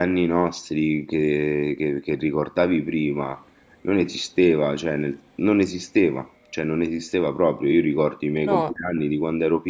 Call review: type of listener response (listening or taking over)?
listening